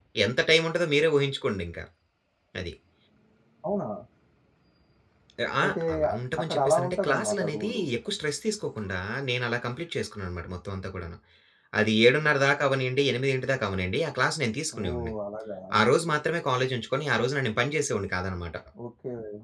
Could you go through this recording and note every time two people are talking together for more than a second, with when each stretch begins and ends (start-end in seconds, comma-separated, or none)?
6.5-7.8